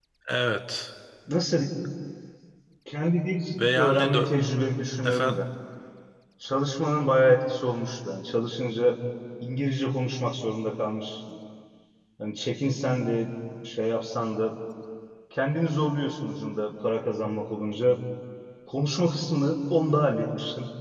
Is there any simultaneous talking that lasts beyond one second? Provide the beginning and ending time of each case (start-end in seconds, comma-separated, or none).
none